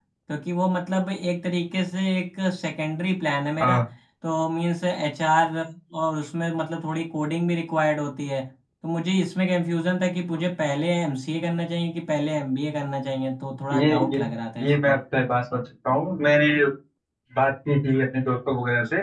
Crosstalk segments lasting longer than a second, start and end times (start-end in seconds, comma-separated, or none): none